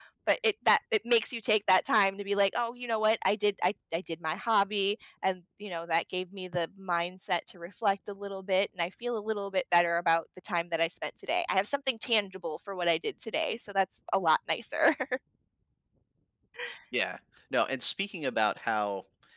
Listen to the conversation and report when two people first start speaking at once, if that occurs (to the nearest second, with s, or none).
none